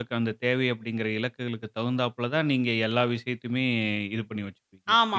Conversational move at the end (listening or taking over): taking over